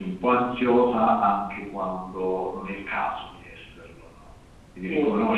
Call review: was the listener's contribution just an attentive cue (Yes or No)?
Yes